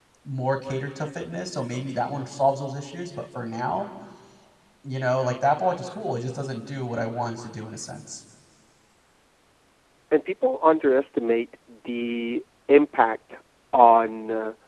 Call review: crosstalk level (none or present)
none